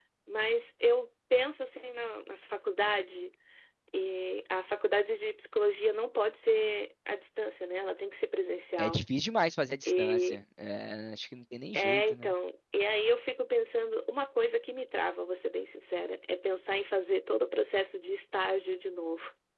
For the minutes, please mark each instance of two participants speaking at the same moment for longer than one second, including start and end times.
none

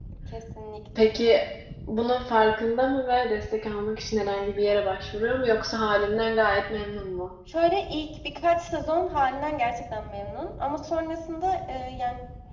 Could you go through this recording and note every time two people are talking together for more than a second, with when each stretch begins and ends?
none

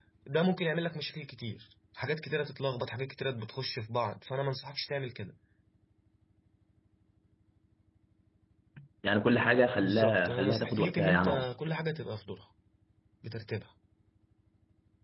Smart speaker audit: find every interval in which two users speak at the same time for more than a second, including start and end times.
9.8-11.5

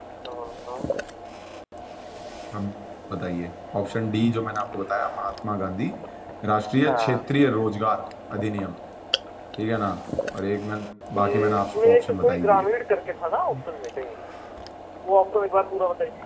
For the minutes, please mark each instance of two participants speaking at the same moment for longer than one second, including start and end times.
11.2-12.7

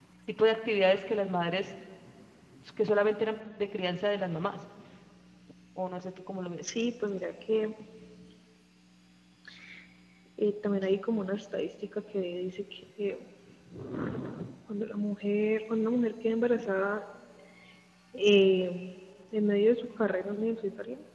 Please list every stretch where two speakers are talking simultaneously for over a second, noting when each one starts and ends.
none

